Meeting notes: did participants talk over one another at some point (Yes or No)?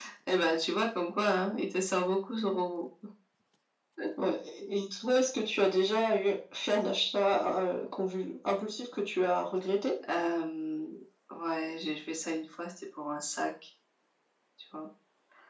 No